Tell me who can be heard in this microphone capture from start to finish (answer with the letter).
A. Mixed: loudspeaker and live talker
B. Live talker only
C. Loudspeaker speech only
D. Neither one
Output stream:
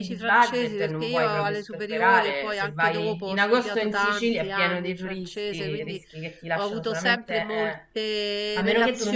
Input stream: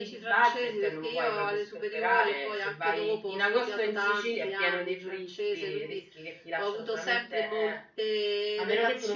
C